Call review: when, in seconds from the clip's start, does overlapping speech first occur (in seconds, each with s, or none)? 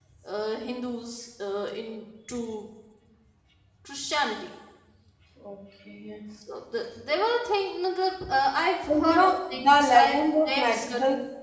8.9 s